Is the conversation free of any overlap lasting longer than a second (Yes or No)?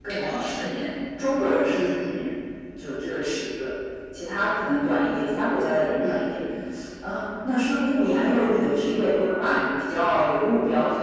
Yes